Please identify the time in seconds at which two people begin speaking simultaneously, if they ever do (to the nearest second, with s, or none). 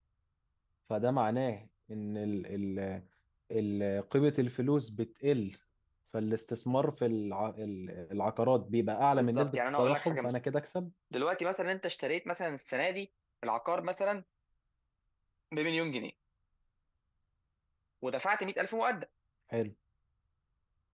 9 s